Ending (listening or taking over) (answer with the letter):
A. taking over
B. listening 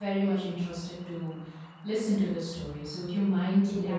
A